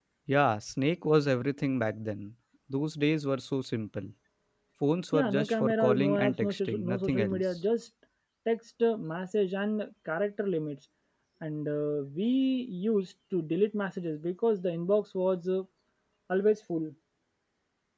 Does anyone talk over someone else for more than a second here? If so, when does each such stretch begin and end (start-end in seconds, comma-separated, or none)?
5.1-7.4